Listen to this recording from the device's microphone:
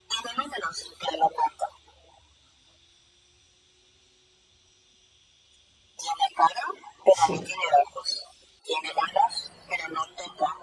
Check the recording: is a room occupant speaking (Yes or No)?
Yes